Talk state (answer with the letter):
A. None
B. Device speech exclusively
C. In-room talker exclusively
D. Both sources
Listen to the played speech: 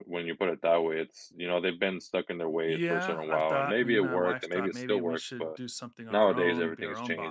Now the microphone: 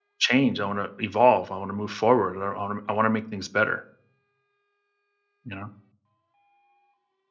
C